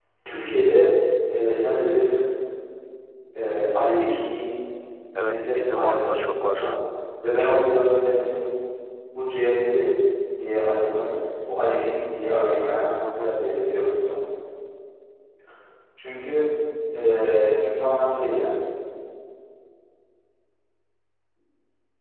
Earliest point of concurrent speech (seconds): 5 s

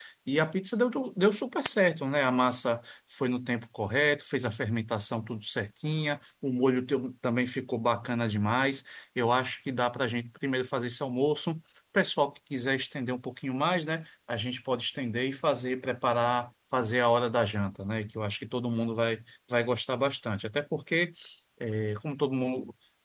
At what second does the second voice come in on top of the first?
none

